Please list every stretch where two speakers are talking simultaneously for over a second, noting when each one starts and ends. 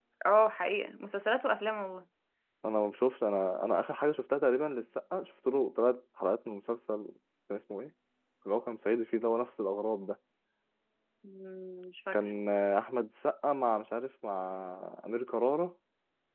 none

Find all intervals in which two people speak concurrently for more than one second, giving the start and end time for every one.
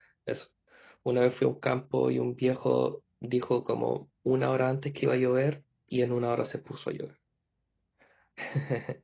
none

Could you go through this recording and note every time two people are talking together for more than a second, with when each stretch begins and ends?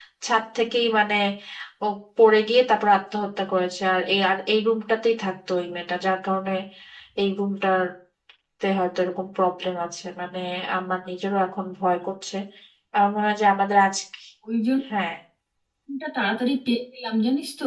none

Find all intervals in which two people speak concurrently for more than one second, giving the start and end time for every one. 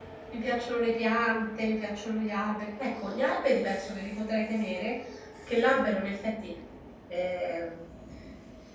none

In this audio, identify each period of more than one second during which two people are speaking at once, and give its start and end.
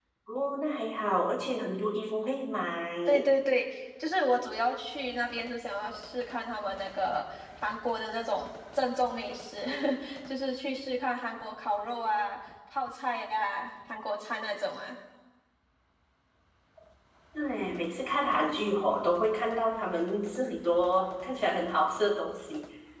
none

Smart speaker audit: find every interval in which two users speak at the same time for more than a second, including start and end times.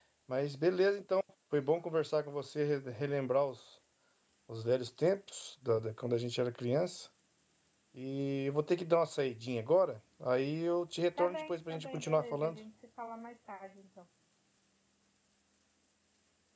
11.2-12.6

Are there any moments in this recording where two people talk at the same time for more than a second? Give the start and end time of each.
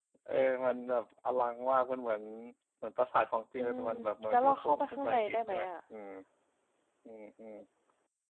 4.3-5.7

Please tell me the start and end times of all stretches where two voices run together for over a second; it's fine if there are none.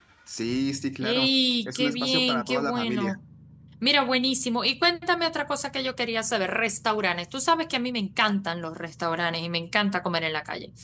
1.7-3.1

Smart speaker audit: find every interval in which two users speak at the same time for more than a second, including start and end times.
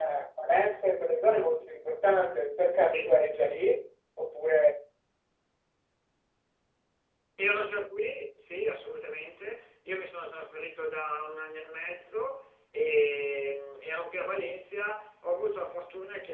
none

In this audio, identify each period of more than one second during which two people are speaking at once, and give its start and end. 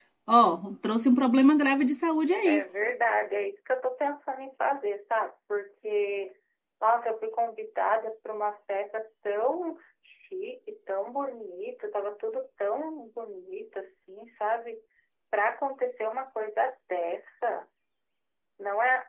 none

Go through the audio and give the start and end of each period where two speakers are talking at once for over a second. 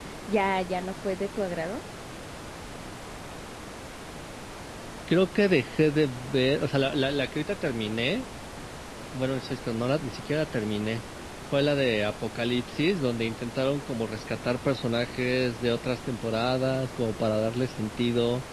none

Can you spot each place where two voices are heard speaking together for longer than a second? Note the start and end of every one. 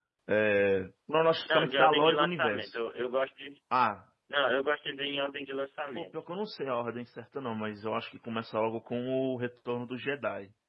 1.4-2.8

